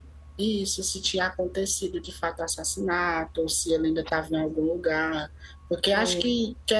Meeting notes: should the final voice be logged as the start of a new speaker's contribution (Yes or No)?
No